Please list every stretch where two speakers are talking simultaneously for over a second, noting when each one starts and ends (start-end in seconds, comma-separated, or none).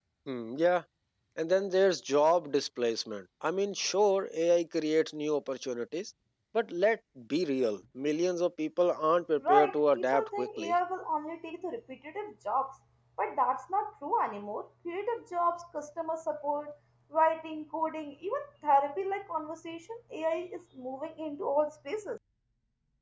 9.5-10.7